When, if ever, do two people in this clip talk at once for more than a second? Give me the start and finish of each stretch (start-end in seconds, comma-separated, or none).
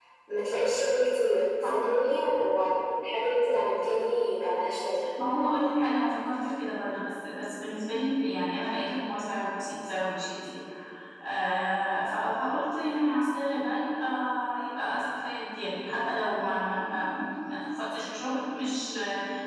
none